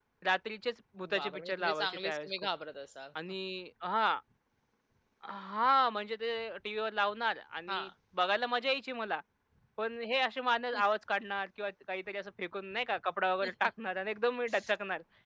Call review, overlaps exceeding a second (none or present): present